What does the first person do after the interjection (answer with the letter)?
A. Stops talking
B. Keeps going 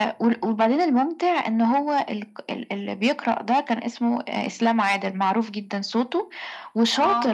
B